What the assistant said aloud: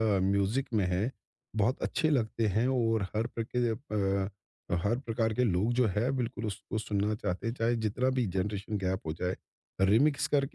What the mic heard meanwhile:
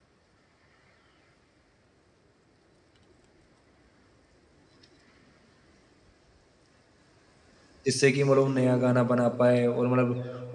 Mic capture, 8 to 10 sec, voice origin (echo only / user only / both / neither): user only